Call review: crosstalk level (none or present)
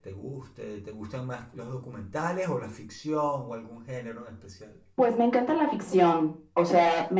none